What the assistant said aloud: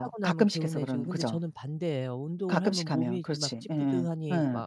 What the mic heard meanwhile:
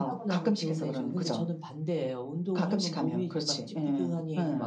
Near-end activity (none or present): none